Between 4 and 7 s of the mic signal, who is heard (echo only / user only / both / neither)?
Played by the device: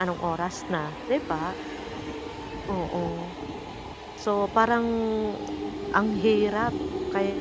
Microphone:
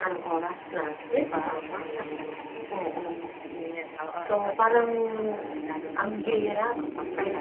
both